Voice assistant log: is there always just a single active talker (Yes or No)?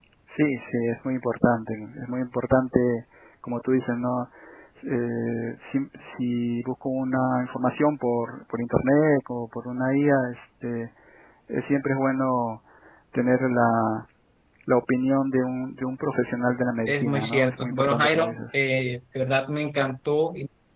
No